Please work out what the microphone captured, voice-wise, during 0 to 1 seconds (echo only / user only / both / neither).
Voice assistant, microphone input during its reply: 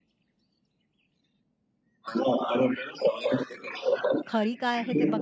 neither